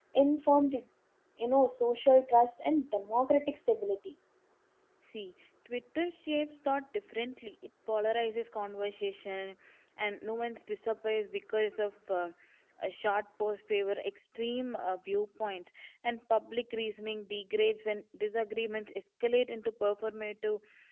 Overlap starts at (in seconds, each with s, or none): none